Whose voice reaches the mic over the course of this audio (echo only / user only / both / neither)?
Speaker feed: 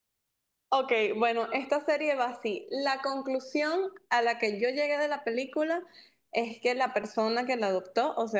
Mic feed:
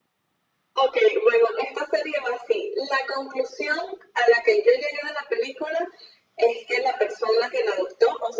echo only